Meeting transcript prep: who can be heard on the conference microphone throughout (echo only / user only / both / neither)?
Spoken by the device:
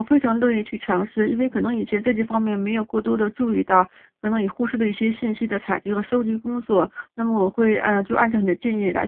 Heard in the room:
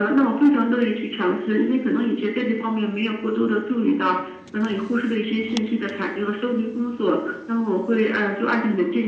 echo only